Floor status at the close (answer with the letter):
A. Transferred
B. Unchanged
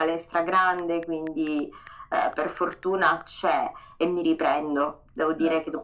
B